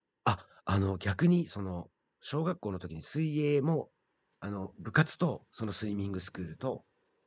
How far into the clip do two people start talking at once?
none

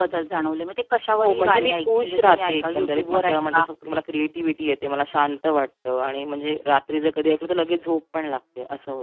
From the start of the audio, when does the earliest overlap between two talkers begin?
1 s

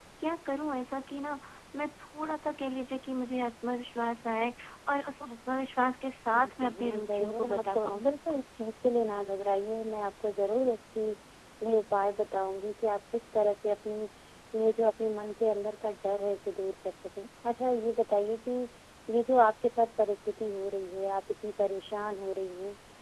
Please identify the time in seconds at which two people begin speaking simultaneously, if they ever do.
6 s

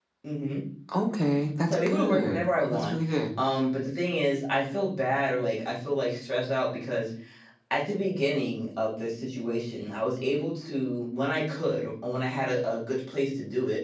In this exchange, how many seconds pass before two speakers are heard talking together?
2 s

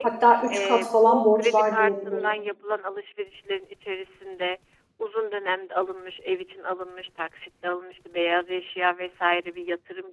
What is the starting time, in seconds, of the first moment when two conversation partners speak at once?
1 s

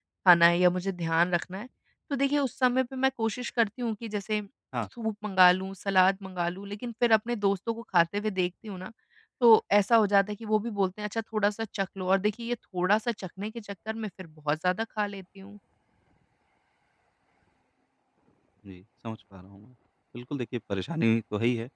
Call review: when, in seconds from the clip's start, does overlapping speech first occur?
none

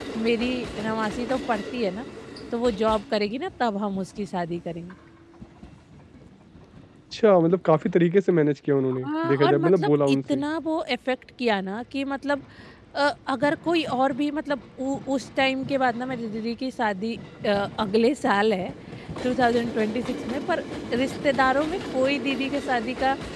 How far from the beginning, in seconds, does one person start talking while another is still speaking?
9 s

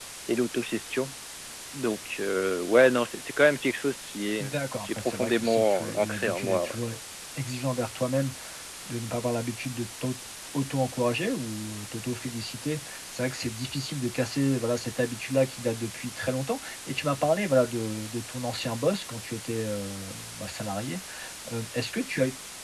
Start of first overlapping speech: 5 s

